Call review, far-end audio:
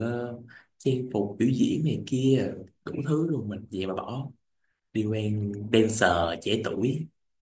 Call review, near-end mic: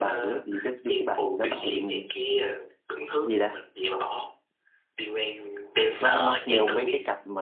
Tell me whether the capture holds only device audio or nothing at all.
No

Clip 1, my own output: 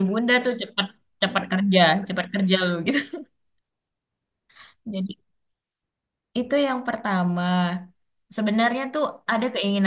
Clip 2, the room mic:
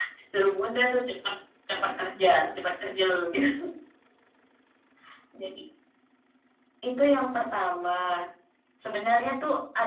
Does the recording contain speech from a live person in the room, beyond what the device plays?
No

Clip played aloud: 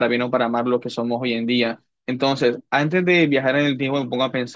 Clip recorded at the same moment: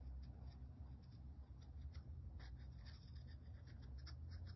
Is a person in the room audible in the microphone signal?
No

